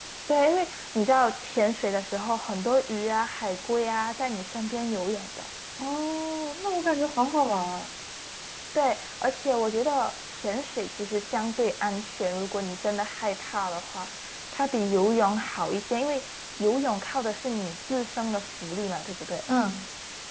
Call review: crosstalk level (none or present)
none